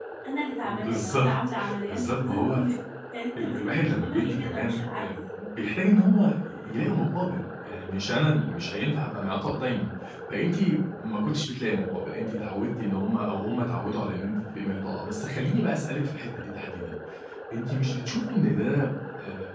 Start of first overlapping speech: 0.6 s

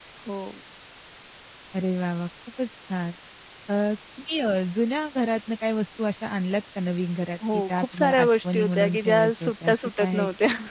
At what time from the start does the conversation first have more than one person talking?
7.4 s

